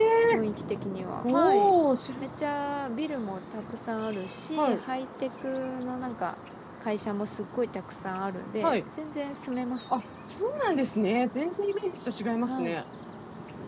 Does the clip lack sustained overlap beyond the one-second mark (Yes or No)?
Yes